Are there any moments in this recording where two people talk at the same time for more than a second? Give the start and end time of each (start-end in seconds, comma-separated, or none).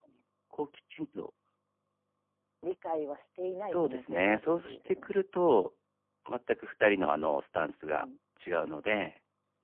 3.6-5.2